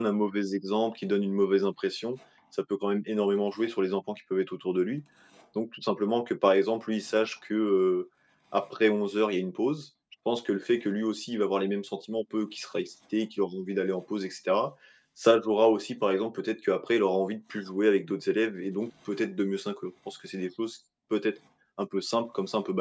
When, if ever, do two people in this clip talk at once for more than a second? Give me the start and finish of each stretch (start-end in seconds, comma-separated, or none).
none